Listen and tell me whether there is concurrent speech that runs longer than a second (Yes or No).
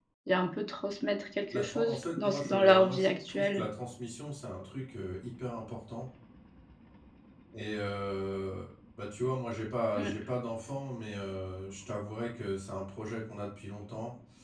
Yes